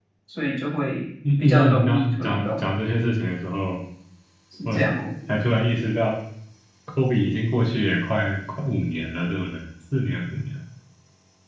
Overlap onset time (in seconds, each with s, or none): 1.2 s